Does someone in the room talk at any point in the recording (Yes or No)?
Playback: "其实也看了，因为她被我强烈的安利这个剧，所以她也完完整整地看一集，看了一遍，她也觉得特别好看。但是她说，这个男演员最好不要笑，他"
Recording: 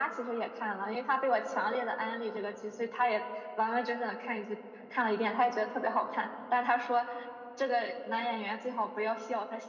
No